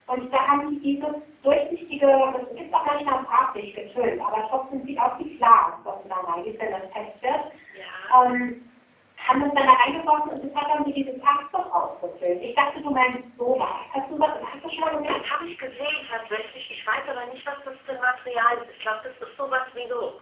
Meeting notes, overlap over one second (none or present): none